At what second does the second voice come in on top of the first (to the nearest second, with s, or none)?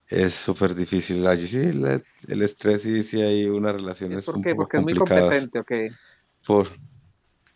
4 s